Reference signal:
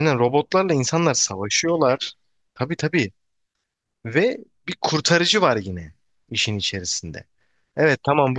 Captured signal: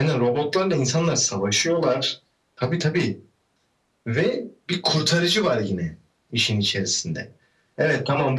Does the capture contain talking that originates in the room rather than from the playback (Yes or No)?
No